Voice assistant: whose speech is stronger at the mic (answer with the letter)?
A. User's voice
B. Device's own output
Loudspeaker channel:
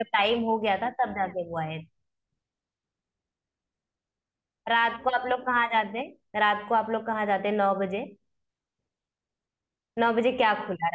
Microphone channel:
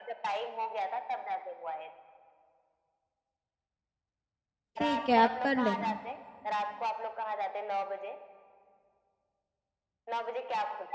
A